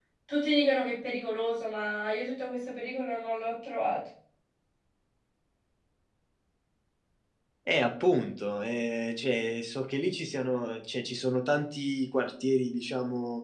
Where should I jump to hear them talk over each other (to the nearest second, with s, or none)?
none